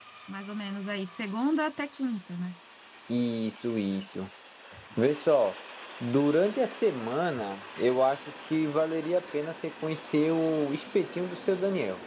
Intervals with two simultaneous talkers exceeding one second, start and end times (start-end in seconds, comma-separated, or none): none